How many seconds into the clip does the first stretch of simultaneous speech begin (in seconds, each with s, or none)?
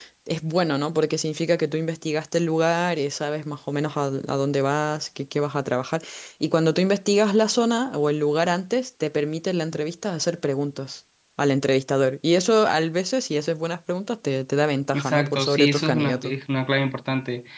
14.9 s